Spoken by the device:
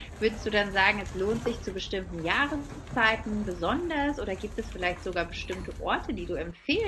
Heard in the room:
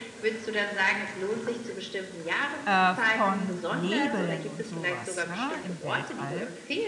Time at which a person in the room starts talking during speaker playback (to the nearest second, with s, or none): 3 s